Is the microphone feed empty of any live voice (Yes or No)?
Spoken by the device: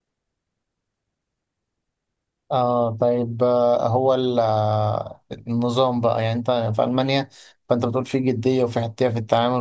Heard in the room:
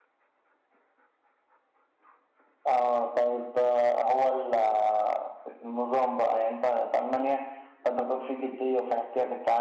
Yes